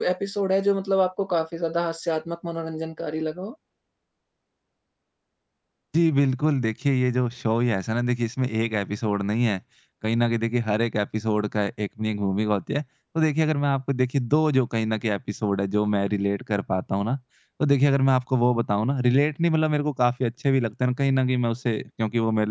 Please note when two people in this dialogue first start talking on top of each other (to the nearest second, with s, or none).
none